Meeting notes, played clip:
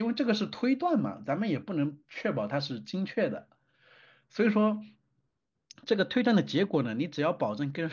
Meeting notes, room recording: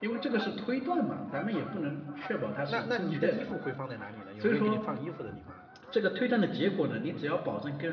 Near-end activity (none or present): present